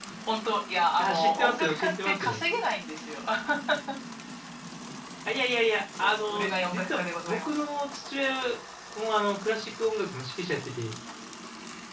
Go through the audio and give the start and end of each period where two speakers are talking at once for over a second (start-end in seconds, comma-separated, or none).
1.0-2.4, 6.0-7.6